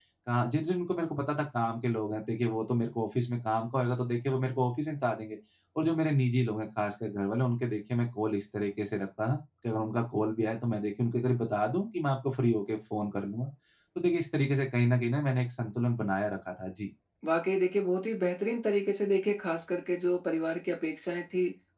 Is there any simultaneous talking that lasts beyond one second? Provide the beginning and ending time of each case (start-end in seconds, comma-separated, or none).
none